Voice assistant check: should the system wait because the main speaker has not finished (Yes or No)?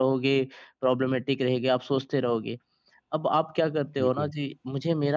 Yes